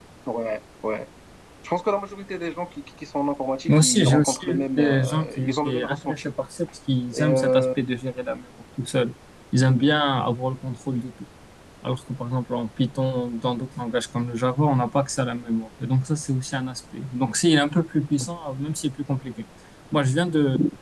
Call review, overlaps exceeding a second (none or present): present